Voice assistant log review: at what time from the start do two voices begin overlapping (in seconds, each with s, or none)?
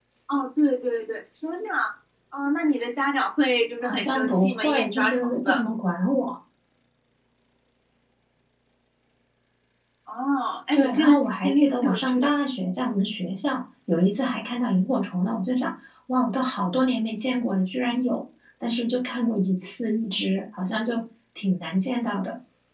3.8 s